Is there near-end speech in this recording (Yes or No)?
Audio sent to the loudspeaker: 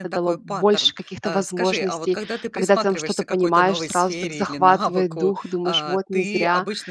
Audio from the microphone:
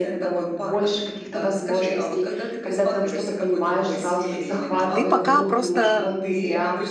Yes